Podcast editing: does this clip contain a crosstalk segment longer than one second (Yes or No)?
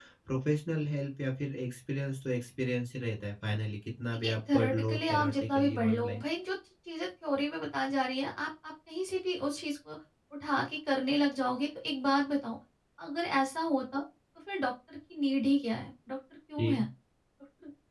Yes